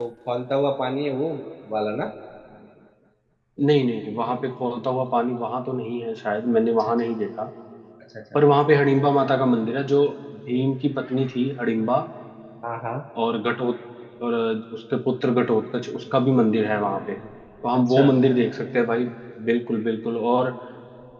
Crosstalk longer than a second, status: none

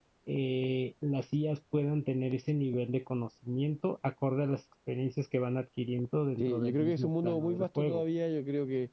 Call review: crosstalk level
present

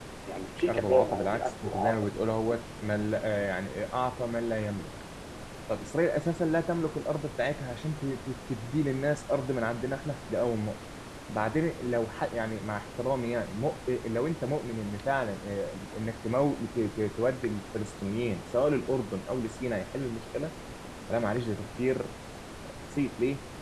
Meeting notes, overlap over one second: present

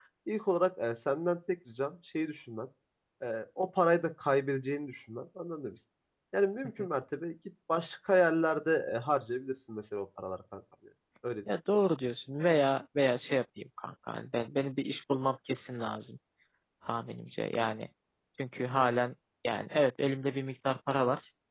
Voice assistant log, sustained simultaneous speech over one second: none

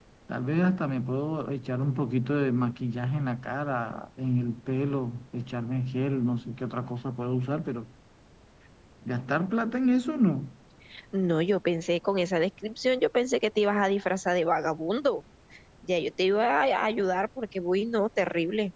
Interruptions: none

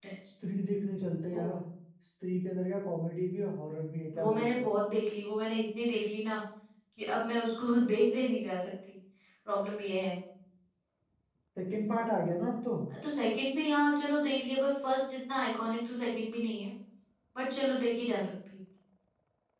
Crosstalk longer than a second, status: none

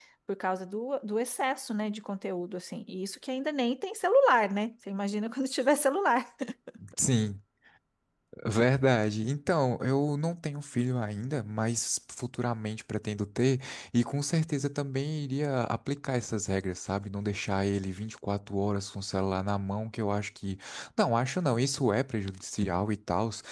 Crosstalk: none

